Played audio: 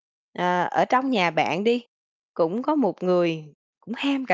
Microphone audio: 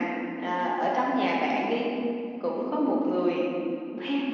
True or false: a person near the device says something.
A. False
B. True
A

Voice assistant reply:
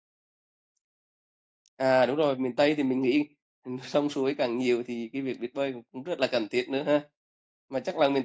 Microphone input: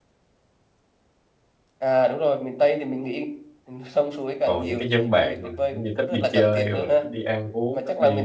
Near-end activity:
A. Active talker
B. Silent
A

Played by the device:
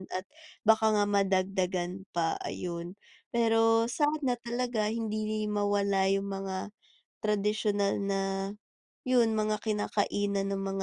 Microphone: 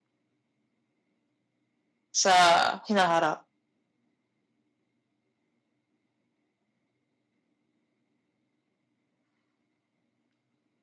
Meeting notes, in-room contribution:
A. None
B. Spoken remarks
B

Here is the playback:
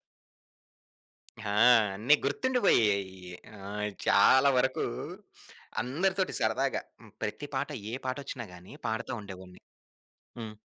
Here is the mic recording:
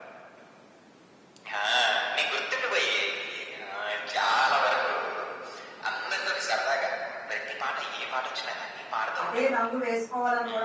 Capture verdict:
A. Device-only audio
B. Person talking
B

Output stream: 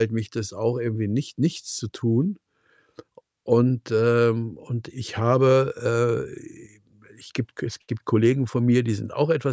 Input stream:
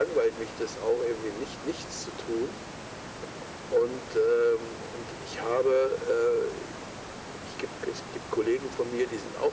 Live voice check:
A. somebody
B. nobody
B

